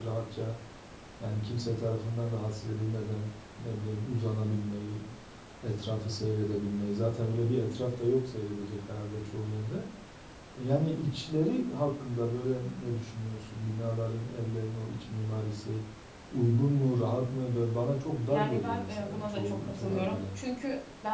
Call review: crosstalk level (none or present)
present